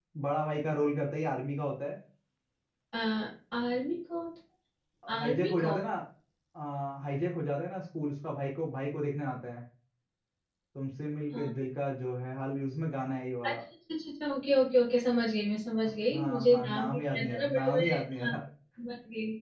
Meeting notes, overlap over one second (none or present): present